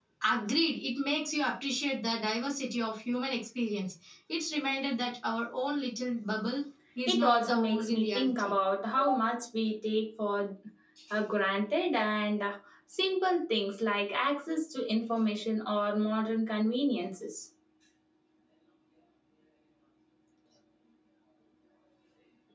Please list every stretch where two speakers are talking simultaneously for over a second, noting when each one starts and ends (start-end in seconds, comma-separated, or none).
7.1-8.5